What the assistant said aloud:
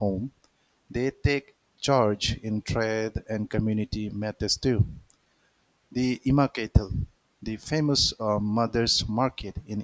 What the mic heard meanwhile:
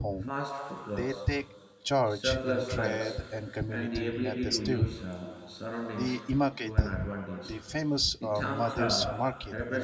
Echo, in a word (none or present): present